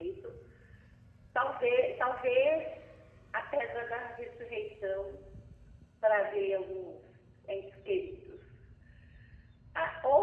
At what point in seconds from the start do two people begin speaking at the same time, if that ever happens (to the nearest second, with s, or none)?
none